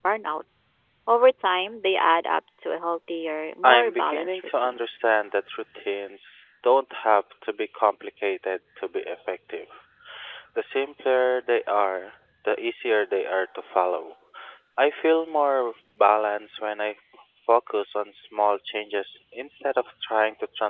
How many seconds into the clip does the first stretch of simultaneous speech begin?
3.6 s

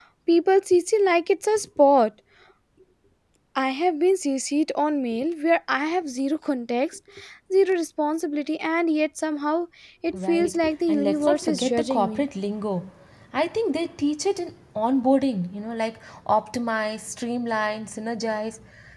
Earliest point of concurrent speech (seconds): 10.3 s

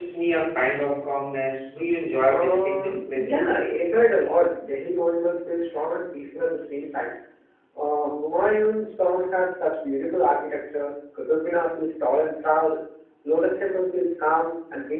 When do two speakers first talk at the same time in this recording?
2.3 s

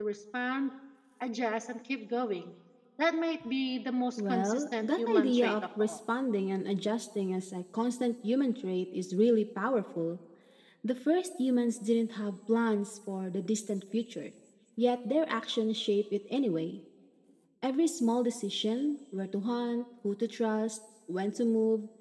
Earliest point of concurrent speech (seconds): 4.2 s

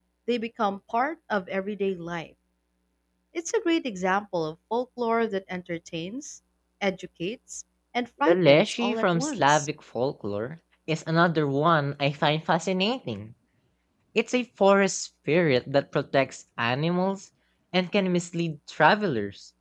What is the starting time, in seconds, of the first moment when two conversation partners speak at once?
8.2 s

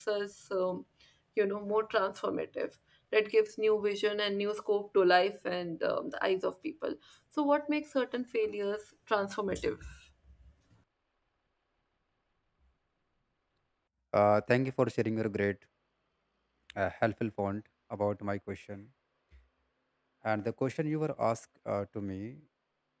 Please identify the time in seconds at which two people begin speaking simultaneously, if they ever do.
none

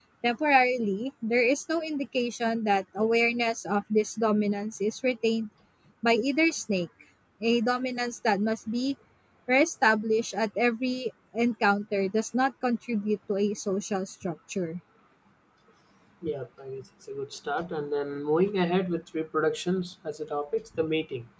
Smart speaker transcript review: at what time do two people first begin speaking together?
none

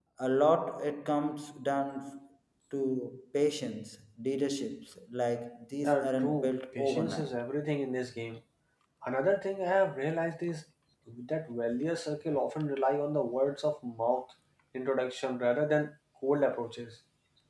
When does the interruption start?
5.8 s

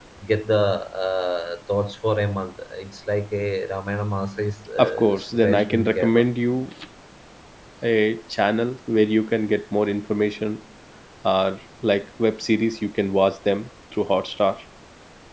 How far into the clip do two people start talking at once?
4.8 s

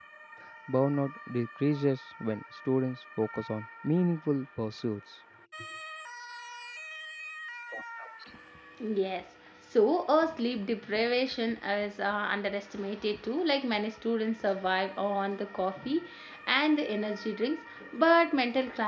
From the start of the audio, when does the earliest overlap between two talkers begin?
none

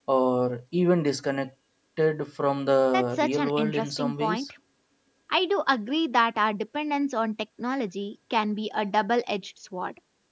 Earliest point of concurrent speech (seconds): 3.2 s

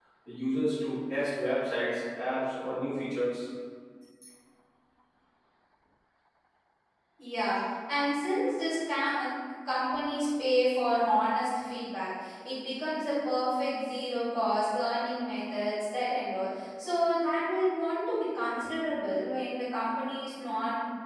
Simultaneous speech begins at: none

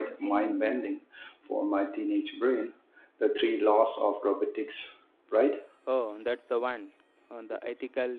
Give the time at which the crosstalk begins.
none

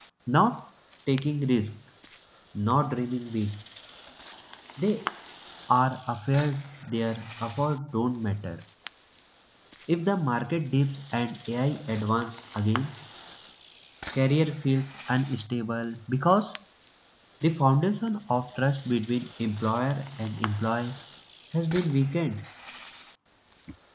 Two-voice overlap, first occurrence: none

